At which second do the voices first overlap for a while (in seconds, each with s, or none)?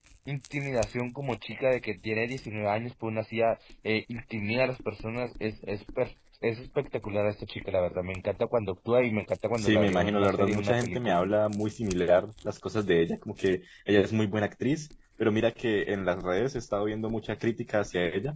9.6 s